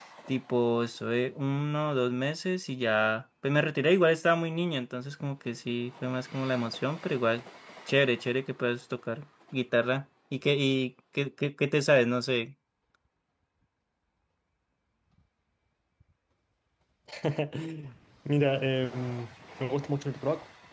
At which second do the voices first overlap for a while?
none

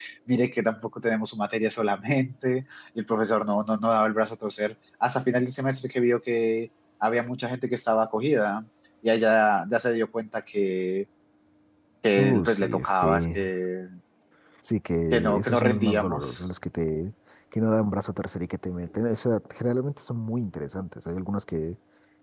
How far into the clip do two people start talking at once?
12 s

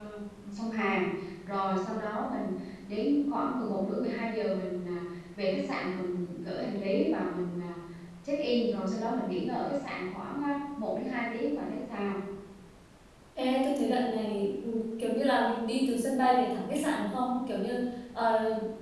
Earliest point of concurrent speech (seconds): none

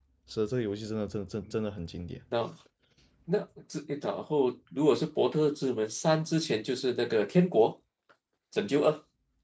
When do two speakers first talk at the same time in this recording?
none

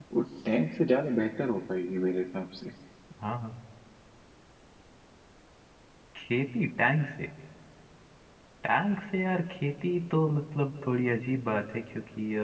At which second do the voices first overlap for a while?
none

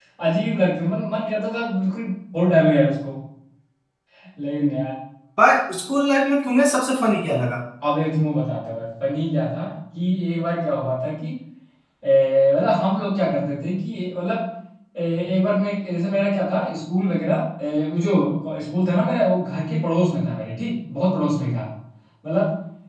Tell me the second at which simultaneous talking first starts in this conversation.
none

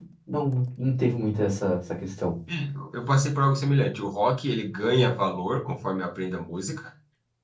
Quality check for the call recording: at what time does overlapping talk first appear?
none

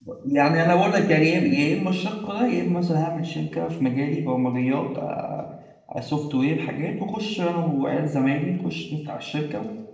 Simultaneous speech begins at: none

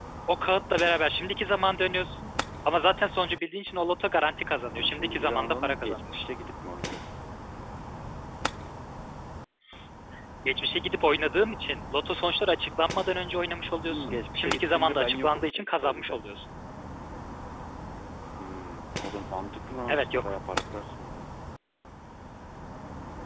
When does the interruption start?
5 s

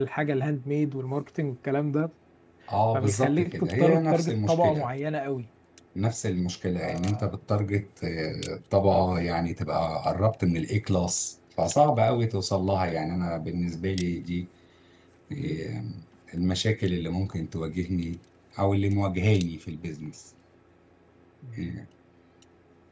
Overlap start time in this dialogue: 3 s

